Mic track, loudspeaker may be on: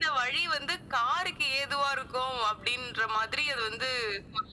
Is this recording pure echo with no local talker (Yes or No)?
Yes